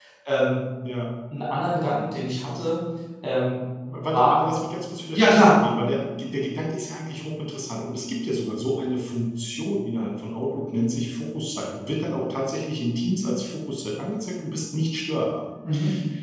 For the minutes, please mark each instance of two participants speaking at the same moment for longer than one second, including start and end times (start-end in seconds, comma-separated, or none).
none